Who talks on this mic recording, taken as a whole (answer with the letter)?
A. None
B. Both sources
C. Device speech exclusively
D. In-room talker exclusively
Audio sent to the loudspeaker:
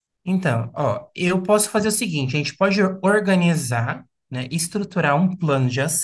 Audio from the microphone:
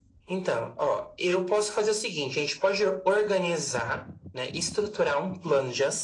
C